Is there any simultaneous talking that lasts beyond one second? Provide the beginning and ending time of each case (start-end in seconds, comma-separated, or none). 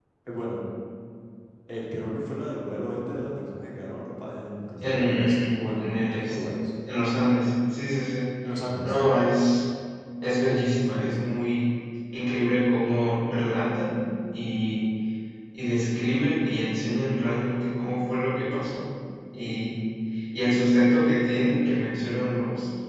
4.8-6.4